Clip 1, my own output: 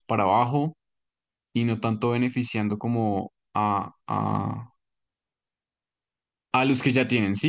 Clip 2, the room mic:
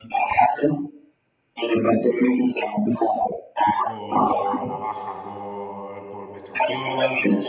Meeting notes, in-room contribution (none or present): present